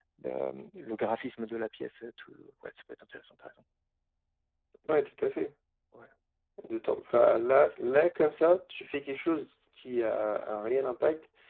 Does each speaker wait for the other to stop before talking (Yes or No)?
Yes